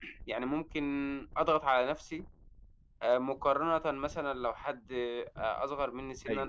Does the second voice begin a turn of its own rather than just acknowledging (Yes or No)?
No